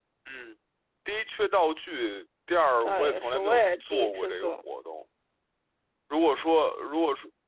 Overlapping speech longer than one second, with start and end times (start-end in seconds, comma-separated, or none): 2.8-4.6